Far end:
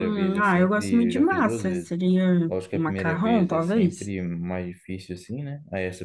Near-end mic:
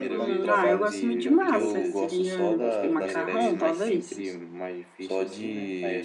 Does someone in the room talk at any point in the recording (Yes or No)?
Yes